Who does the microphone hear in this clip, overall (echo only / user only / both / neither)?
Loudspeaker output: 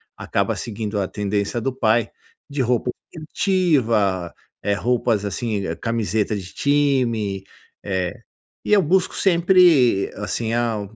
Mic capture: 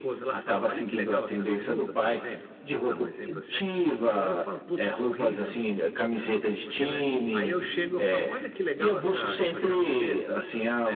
both